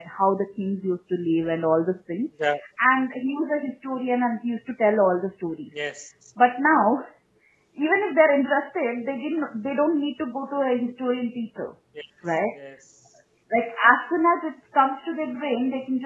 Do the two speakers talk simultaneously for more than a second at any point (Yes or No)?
No